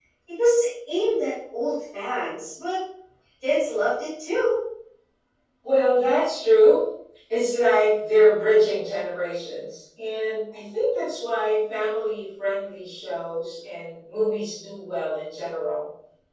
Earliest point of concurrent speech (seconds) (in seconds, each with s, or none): none